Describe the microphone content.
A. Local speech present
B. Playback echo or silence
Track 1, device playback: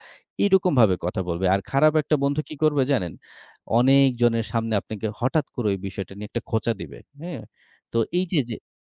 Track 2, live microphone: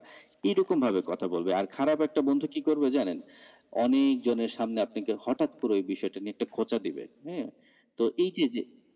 B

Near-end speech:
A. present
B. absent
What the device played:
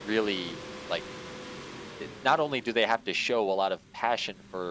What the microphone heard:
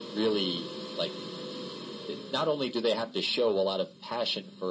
B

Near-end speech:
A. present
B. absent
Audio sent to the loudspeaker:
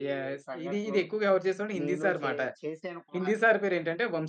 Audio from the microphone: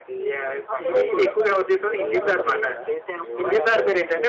A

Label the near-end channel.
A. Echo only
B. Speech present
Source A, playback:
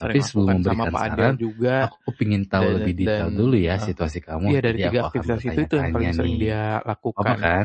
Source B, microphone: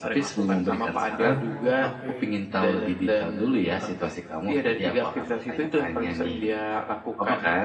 B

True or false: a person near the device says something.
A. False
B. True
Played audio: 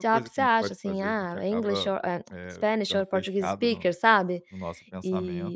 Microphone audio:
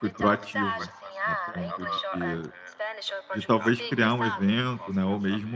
B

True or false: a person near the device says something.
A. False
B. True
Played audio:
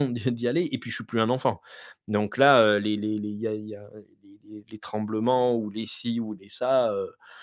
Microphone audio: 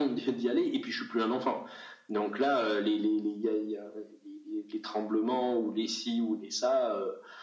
A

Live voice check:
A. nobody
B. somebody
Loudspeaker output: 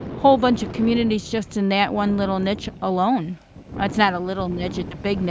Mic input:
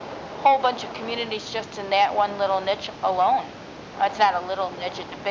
A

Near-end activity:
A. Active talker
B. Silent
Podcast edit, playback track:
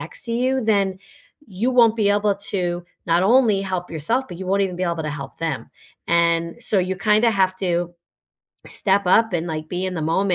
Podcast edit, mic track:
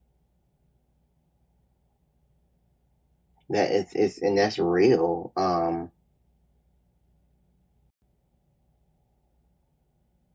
A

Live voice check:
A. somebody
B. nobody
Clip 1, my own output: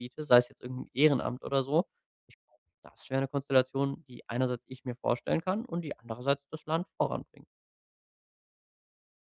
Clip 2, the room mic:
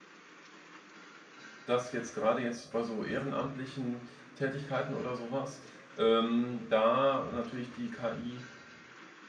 A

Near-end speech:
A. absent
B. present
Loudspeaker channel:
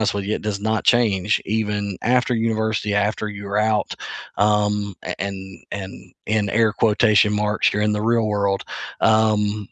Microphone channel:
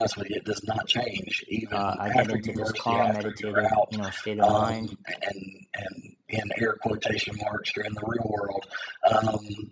B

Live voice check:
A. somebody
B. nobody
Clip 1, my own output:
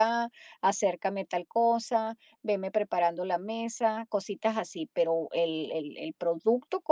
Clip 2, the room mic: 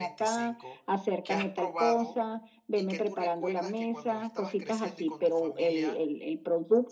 A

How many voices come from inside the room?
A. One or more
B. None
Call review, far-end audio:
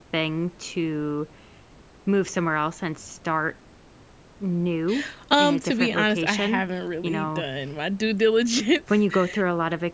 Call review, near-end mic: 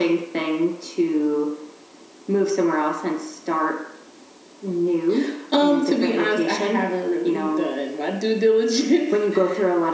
B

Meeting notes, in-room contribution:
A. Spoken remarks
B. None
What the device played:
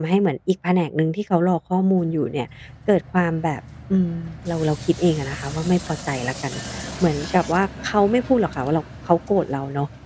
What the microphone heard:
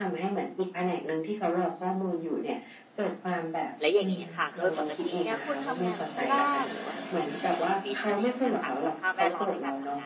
A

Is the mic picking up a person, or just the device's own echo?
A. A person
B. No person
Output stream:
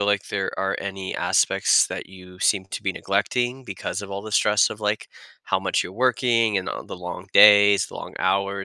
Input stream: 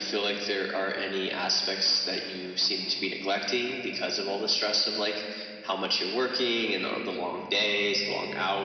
B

